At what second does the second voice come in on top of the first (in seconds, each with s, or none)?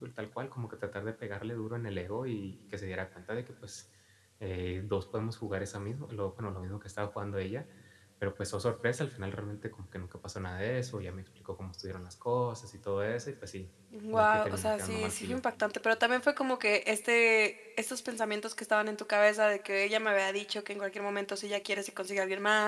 14.1 s